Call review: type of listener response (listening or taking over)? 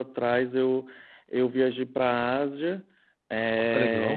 listening